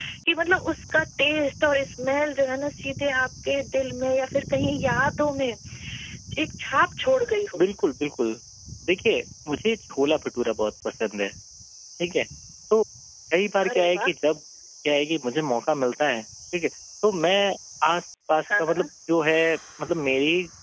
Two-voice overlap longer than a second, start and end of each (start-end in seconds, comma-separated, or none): none